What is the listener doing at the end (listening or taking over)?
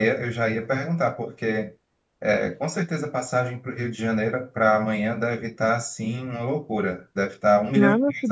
taking over